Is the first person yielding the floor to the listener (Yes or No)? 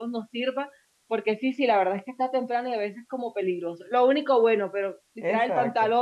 No